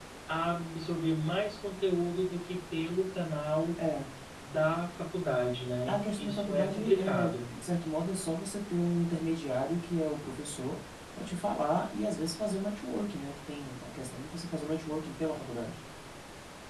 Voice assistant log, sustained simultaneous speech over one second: present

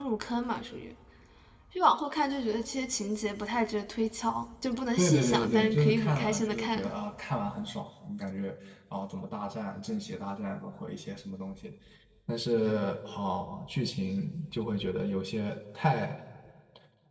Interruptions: present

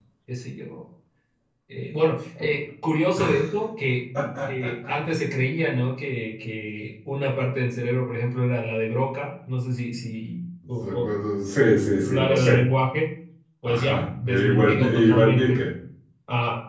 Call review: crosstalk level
present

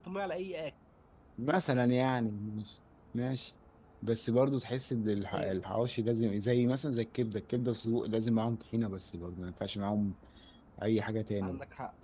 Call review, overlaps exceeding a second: none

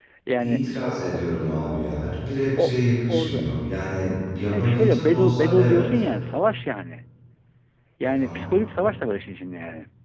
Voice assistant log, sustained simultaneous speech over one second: present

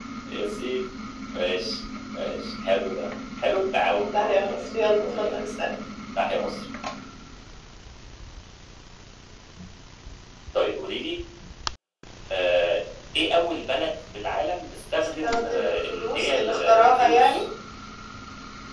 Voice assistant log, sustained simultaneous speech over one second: present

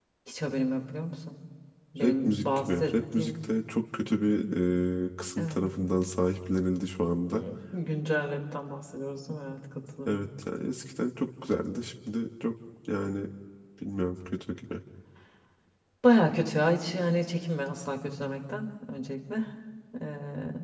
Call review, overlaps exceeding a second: present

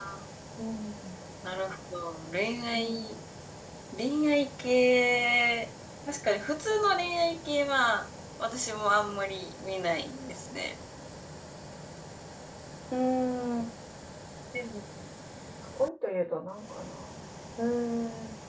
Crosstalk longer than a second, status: none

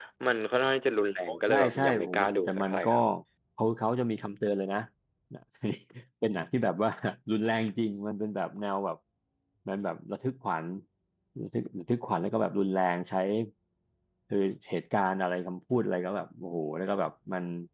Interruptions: present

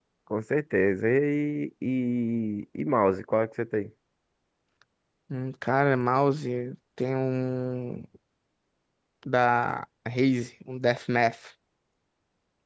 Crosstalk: none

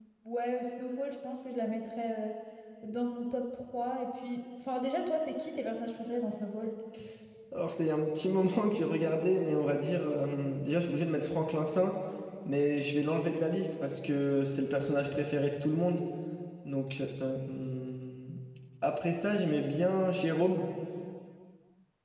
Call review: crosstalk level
none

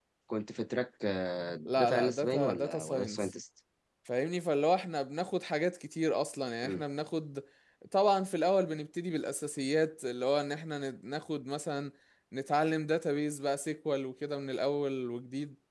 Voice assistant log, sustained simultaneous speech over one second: present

